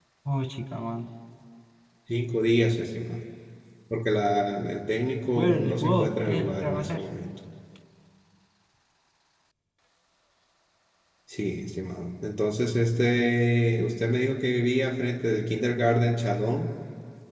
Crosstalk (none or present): present